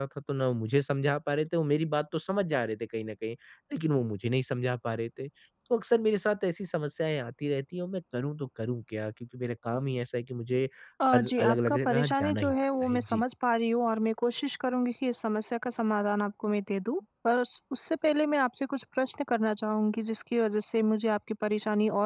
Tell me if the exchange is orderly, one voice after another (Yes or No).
No